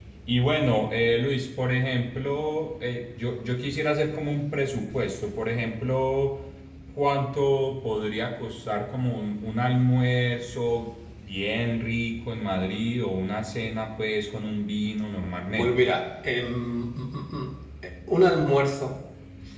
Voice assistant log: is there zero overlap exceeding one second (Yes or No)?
Yes